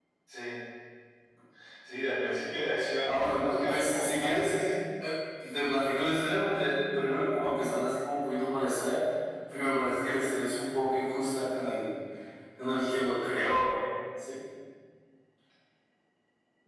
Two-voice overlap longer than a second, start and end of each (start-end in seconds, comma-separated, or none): 3.1-4.5